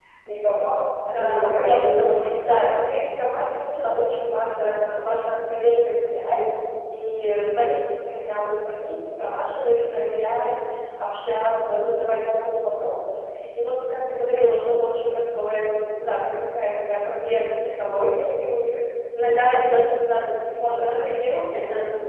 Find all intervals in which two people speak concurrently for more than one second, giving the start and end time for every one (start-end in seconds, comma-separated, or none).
1.1-2.8